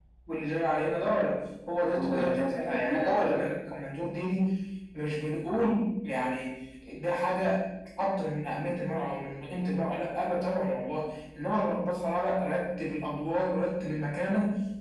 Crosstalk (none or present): present